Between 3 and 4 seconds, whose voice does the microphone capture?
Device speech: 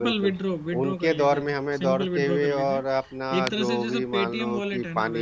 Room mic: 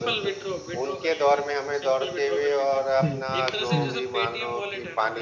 both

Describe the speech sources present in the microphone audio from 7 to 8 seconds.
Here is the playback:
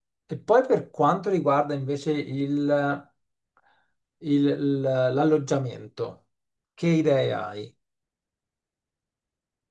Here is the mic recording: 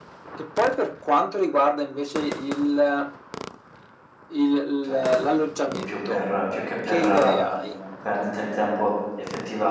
both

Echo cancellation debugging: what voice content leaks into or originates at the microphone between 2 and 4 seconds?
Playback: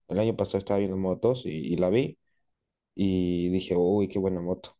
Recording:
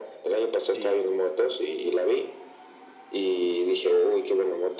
echo only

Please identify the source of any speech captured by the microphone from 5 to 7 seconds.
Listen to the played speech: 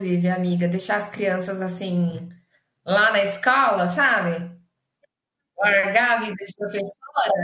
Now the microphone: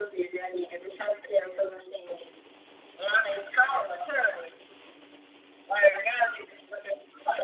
echo only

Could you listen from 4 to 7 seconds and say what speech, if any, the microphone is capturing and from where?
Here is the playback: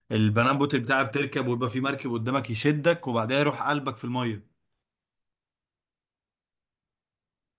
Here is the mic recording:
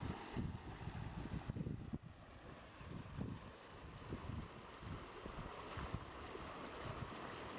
neither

